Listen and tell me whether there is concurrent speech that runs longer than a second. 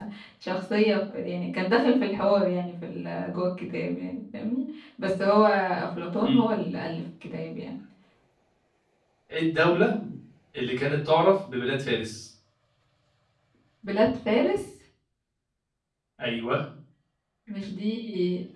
No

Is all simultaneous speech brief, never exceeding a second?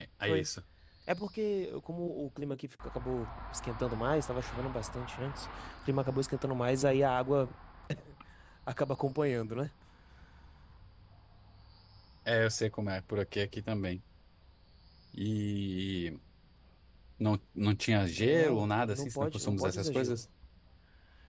No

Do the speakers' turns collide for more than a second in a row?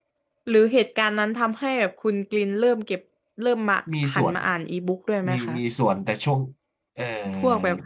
No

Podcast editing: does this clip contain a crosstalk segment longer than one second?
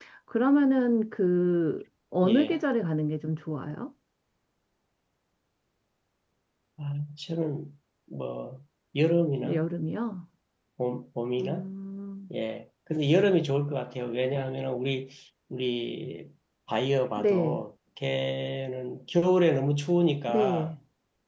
No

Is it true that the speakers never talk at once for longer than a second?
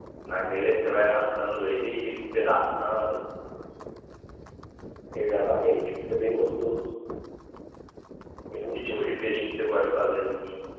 Yes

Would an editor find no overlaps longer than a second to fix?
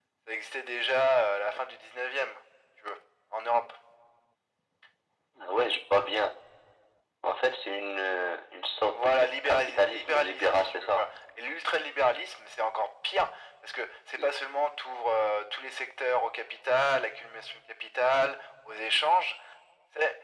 No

